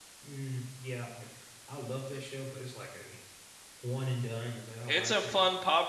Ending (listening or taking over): taking over